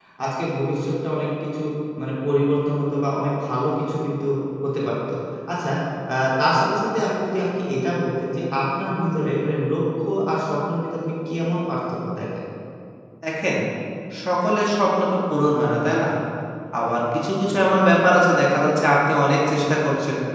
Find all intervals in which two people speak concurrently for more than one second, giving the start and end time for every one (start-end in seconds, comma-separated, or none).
none